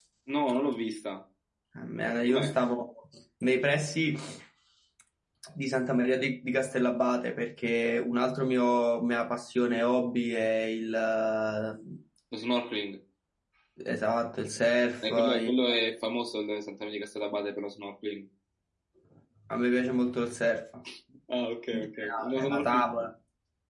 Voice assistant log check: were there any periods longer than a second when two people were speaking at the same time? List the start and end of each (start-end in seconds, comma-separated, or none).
21.7-23.1